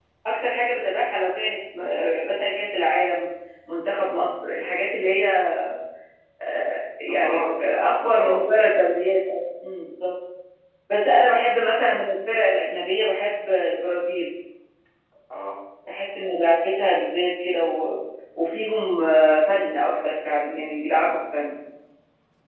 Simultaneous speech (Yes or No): Yes